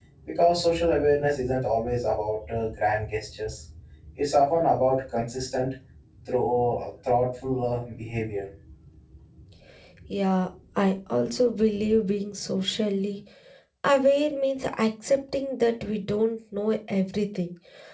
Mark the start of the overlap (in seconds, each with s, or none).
none